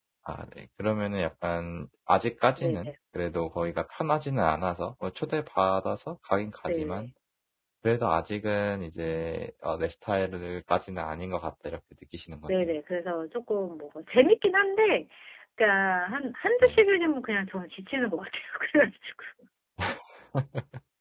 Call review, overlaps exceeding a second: none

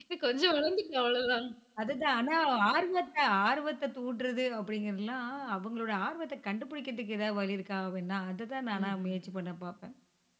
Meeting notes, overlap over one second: none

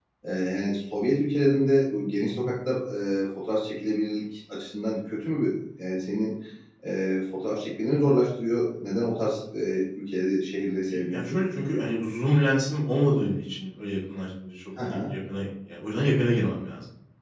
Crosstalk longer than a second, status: none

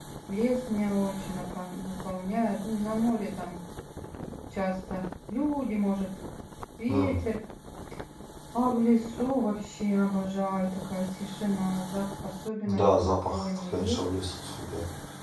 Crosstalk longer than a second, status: present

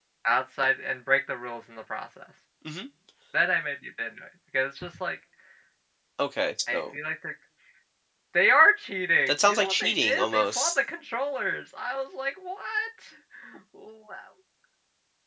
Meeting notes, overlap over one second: present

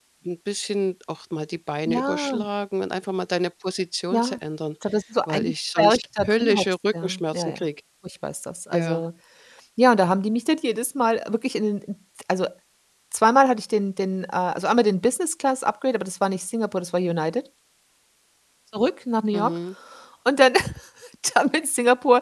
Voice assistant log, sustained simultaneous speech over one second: present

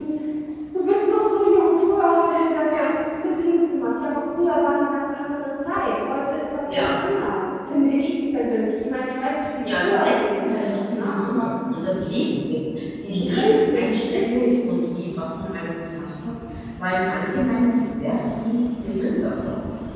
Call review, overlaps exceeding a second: present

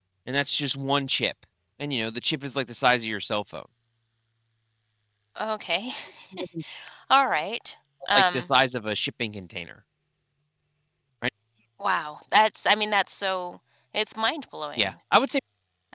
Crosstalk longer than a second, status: none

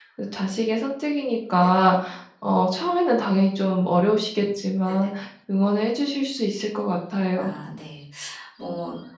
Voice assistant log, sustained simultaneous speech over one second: none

